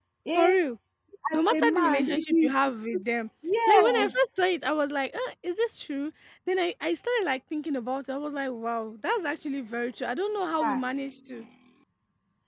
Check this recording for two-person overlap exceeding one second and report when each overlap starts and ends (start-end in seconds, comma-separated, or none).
1.3-2.5